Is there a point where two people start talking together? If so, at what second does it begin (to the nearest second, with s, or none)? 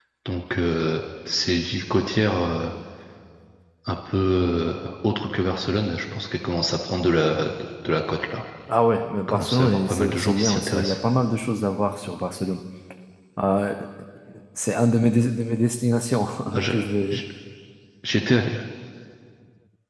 9 s